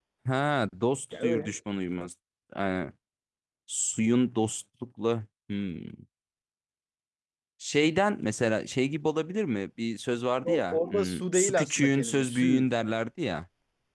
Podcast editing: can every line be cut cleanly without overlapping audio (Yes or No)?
No